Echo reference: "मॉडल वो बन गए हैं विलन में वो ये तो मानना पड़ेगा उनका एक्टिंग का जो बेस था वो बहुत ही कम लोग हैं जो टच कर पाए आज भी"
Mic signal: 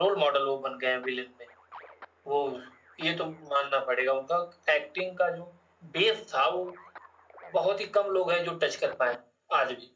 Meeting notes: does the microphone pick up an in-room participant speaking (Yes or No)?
No